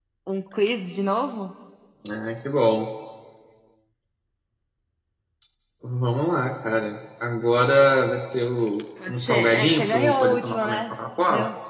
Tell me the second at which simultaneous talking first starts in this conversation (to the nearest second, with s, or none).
9 s